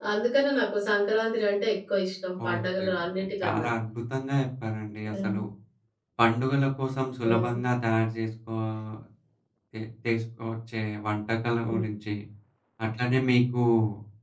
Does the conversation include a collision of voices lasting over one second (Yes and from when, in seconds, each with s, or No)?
Yes, from 2.4 s